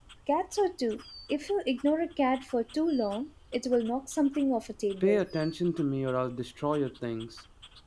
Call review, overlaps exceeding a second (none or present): none